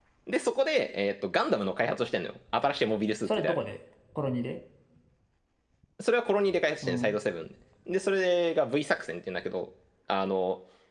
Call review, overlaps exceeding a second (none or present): none